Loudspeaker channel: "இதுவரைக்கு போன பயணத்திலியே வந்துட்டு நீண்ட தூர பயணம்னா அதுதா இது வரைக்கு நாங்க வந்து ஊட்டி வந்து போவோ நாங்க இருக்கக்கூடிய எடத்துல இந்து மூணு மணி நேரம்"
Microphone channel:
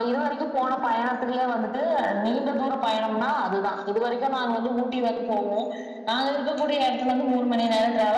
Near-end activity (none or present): none